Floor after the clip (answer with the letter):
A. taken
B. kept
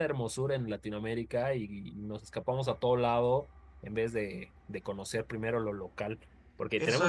A